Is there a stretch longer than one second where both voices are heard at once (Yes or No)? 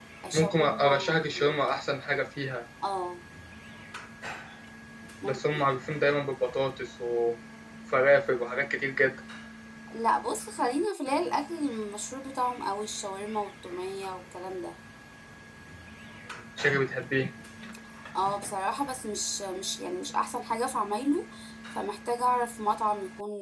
Yes